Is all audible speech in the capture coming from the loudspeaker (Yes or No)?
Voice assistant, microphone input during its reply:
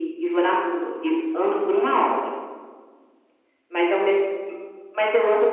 Yes